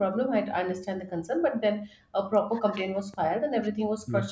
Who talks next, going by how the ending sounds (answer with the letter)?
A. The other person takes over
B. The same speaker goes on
B